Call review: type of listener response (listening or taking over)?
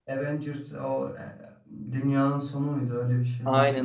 taking over